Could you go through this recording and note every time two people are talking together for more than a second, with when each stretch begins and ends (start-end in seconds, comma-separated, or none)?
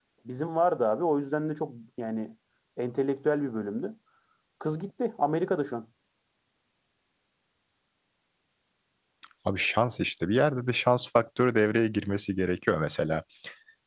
none